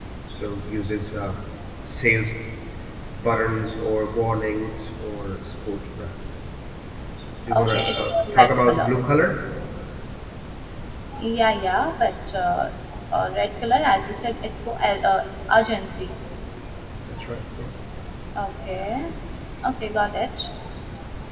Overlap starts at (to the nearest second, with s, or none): 8 s